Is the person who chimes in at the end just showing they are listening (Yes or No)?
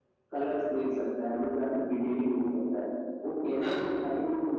Yes